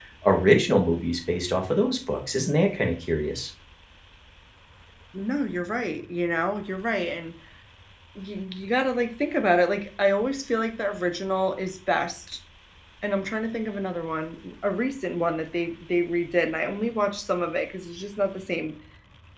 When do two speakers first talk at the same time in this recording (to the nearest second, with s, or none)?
none